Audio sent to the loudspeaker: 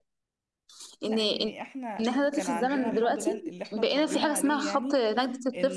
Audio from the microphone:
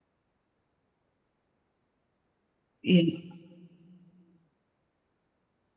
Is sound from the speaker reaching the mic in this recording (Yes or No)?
No